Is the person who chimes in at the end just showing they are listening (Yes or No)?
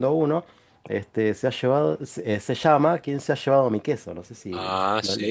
No